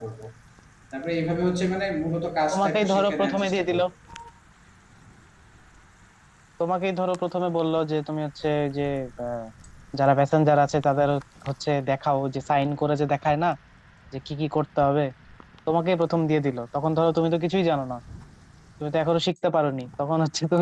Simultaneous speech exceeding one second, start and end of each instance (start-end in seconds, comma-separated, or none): 2.5-3.8